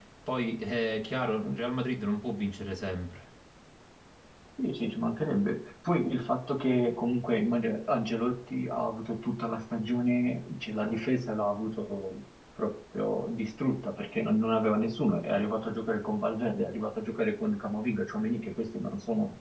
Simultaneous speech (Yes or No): No